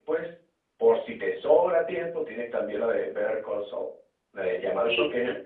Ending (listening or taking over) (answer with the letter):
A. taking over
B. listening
B